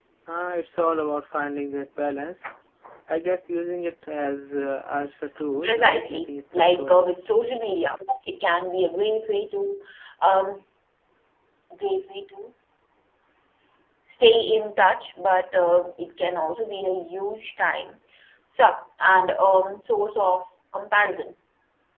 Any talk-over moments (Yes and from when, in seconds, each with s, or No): Yes, from 5.6 s